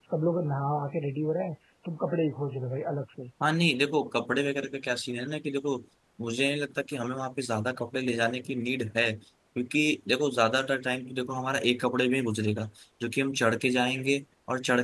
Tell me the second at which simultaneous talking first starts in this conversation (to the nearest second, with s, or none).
none